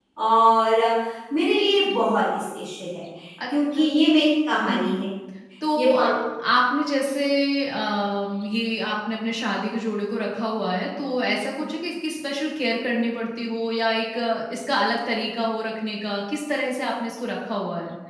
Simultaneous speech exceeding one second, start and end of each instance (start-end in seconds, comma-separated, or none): none